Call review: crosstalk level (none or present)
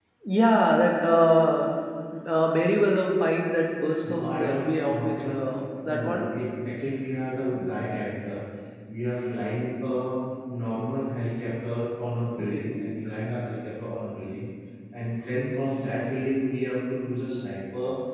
present